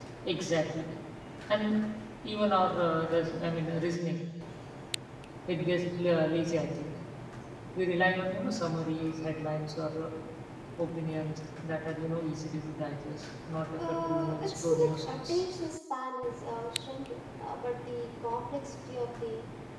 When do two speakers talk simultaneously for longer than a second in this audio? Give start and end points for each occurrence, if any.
13.8-15.3

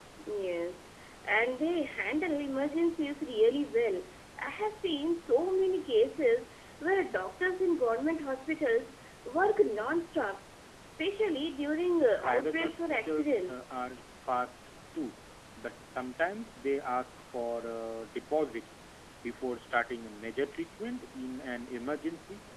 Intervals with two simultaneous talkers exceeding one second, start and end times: 12.2-13.6

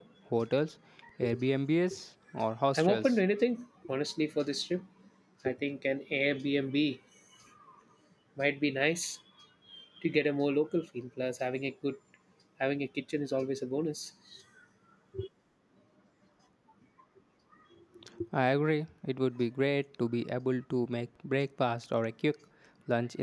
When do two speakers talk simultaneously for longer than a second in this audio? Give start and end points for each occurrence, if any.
none

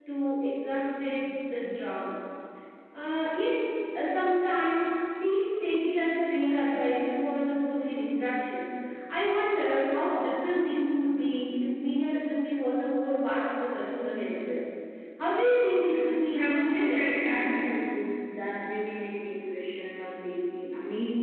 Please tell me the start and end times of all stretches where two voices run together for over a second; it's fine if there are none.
16.3-17.6

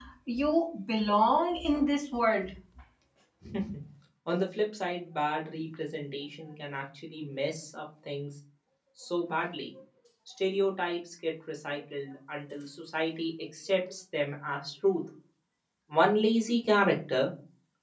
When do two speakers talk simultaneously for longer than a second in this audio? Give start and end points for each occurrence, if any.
none

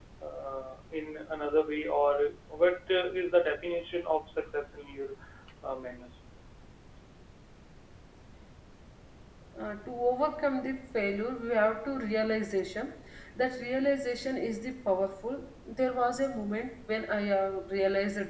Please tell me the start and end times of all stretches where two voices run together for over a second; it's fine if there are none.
none

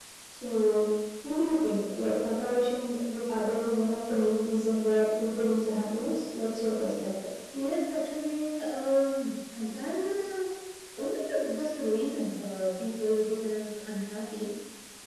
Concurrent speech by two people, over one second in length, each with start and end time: none

